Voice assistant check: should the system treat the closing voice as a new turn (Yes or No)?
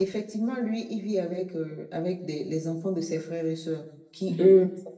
No